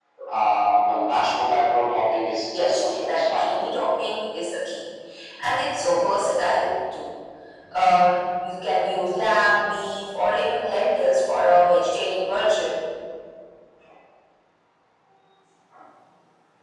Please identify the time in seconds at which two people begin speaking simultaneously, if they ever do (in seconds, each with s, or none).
2.5 s